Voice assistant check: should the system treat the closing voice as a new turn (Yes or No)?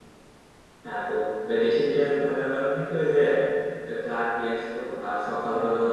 No